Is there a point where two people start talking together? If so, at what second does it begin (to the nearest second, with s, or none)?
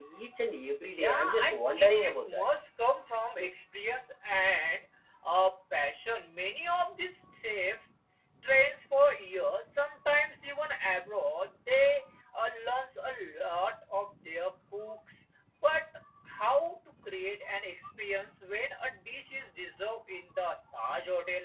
1 s